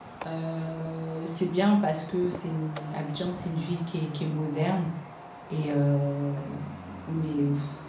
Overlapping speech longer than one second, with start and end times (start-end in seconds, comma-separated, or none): none